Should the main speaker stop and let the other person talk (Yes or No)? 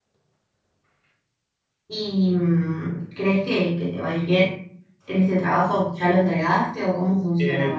Yes